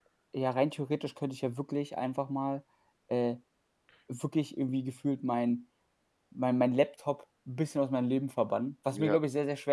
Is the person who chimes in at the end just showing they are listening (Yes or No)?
Yes